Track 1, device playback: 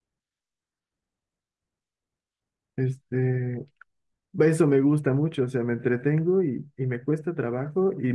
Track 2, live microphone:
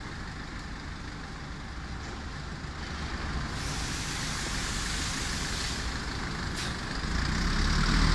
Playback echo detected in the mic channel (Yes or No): No